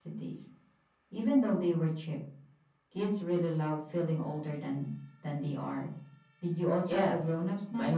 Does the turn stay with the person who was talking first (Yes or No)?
No